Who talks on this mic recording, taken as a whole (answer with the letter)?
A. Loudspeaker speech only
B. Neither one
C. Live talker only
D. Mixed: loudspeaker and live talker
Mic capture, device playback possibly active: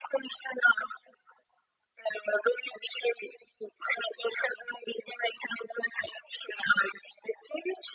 A